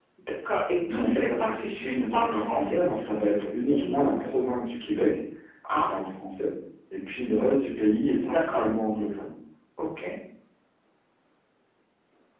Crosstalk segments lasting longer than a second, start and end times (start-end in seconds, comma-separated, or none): 0.9-2.8